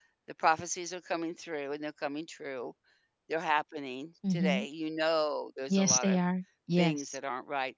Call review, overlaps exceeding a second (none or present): none